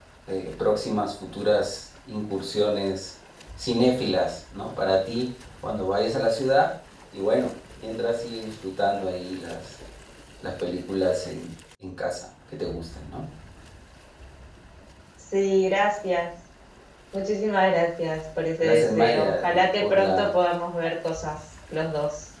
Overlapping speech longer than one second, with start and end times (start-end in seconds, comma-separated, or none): 18.6-20.3